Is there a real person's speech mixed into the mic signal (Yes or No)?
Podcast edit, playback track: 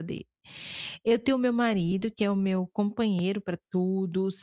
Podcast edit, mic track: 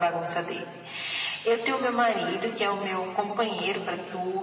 No